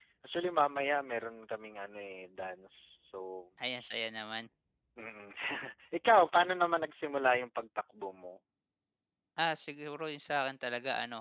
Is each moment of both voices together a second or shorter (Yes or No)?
Yes